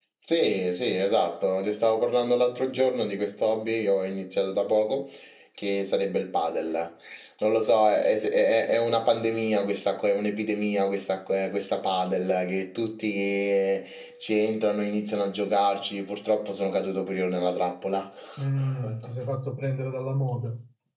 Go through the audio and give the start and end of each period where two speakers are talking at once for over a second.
none

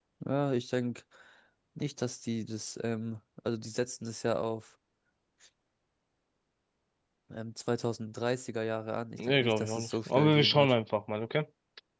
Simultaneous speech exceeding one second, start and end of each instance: 9.2-10.7

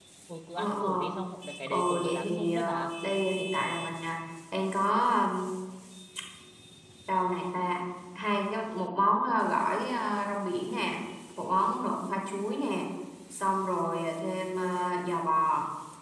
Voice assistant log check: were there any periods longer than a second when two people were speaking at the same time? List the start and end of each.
1.7-2.9

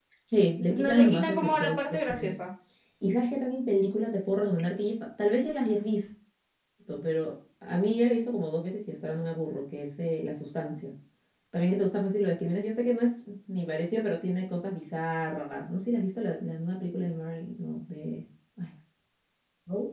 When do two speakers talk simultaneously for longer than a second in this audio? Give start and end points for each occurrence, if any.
0.8-2.3

